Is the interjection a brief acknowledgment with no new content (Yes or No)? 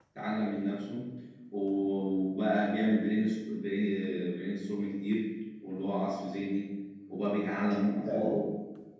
Yes